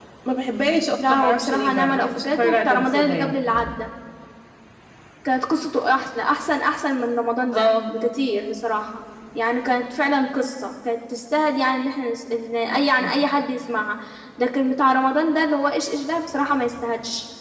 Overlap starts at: 1.1 s

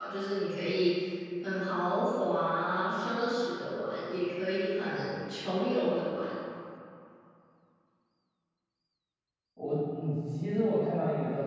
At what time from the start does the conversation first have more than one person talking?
none

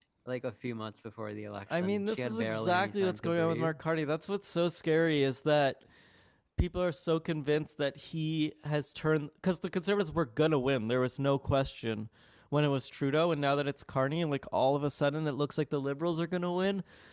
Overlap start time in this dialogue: 1.7 s

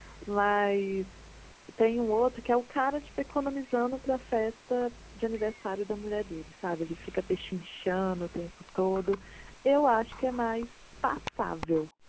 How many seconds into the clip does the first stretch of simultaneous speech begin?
none

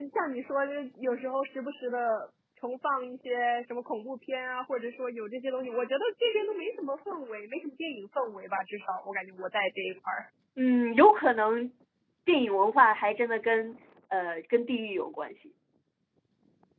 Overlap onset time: none

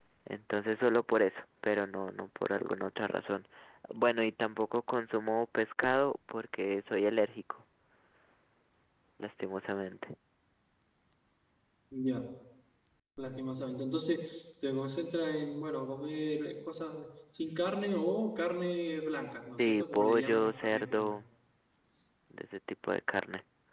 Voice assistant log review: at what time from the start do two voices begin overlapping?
19.6 s

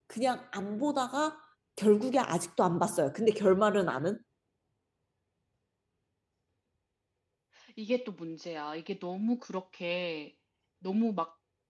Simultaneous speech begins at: none

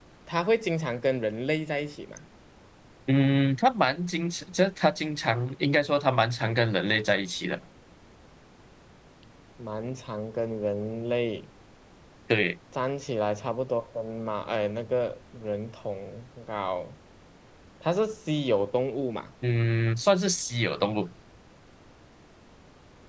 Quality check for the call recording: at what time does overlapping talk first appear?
none

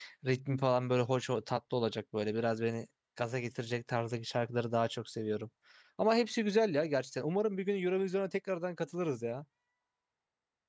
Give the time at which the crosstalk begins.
none

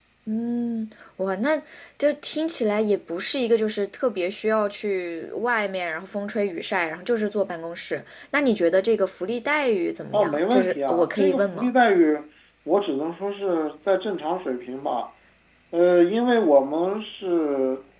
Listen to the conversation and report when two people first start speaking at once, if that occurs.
10.1 s

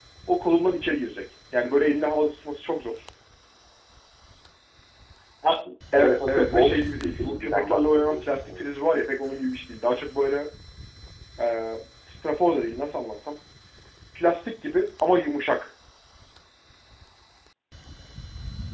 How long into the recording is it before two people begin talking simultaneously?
5.9 s

